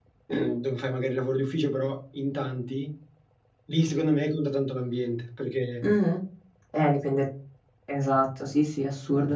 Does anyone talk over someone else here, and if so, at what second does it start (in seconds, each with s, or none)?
none